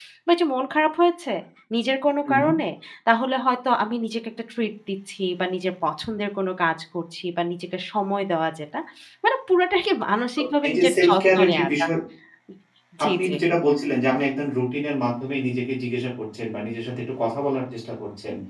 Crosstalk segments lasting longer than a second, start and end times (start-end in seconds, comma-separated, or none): 10.4-11.8